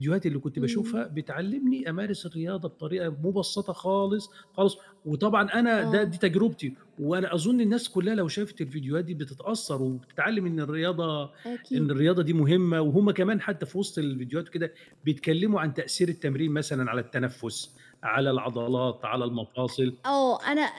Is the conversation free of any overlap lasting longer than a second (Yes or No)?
Yes